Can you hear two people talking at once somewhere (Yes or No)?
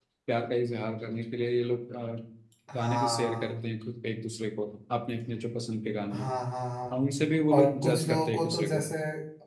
Yes